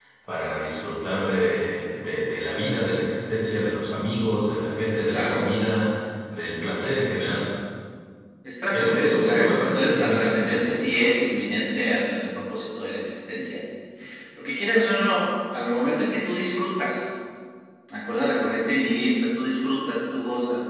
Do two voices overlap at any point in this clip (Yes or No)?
Yes